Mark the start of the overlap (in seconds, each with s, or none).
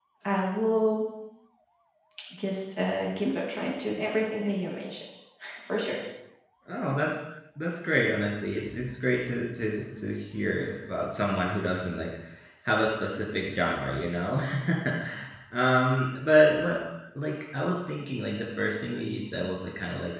none